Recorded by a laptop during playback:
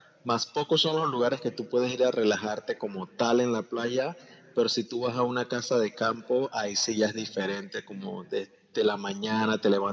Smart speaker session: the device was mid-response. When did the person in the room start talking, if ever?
none

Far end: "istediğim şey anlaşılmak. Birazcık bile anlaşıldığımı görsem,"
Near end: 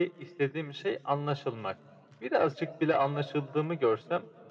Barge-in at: none

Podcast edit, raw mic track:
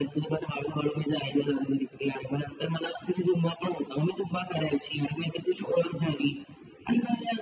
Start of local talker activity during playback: none

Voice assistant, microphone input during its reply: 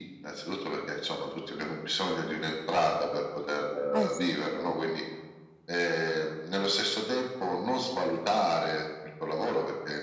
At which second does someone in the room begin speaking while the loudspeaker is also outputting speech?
3.9 s

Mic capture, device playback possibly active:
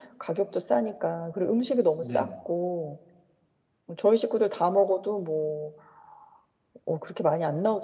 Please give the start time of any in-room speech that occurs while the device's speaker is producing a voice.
2.0 s

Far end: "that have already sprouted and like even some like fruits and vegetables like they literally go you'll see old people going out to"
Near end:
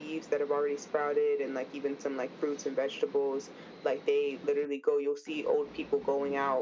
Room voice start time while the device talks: none

